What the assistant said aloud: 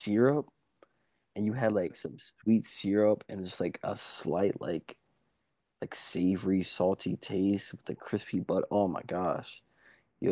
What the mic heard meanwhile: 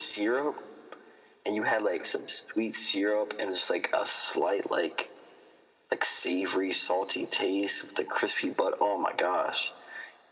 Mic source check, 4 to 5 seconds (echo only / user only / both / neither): echo only